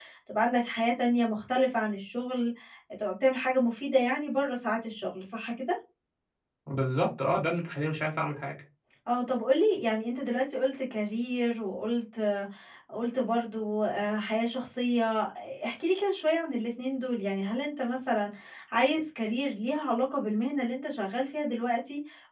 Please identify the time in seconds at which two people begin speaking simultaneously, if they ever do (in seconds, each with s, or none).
none